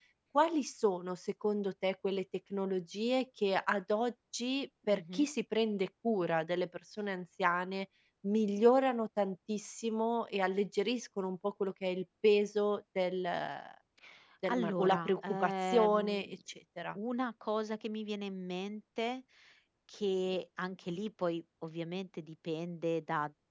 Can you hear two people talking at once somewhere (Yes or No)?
Yes